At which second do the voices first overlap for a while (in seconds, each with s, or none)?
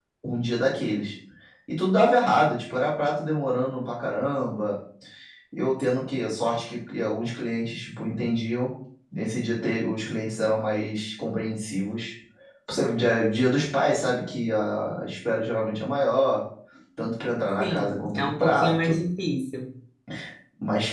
17.6 s